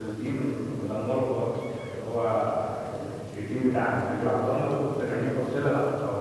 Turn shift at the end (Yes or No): No